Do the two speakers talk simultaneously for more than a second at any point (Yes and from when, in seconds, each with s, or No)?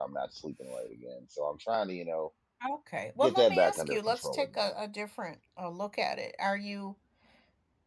Yes, from 3.2 s